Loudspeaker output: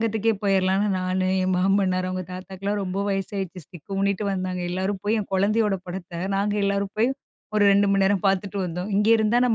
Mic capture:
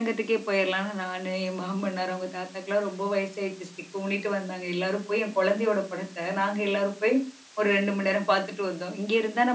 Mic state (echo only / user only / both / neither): echo only